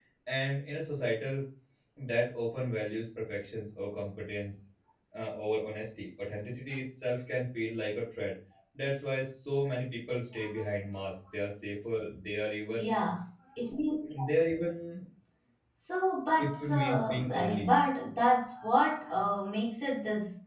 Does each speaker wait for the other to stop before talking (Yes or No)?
No